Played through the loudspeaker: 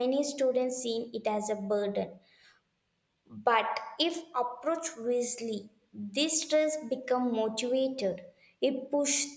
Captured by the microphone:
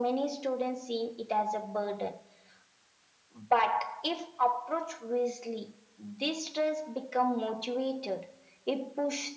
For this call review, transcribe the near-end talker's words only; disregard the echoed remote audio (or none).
none